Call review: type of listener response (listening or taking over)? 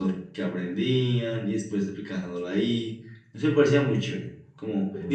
listening